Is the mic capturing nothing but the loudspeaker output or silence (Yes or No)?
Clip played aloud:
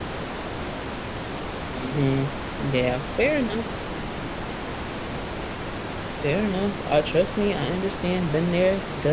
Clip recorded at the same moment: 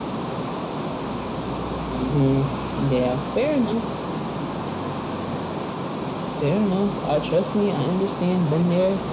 Yes